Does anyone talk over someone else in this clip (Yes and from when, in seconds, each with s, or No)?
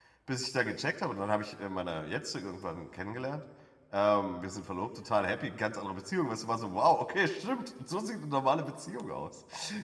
No